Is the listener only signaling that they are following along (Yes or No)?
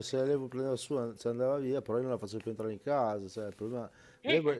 Yes